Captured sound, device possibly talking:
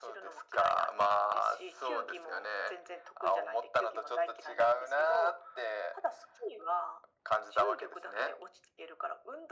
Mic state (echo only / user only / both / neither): echo only